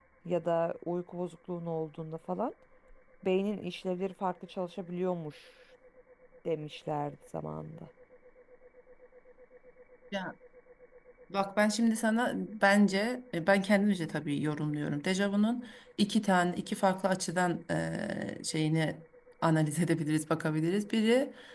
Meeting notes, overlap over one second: none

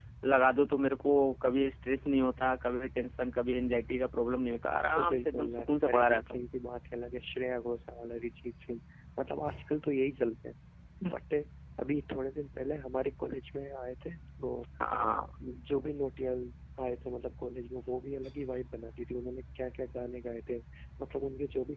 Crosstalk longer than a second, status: present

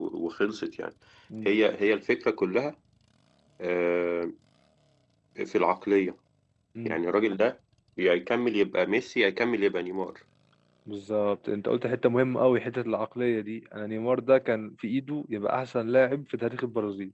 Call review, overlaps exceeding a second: none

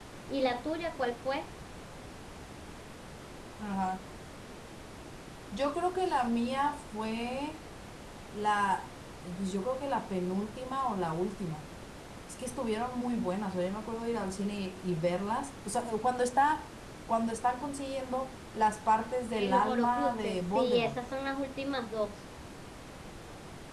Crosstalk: present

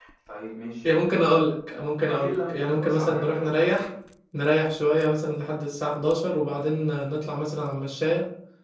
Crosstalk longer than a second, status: present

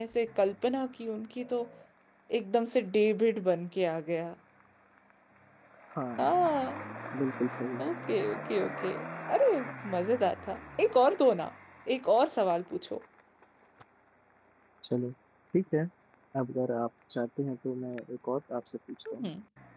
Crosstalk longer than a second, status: none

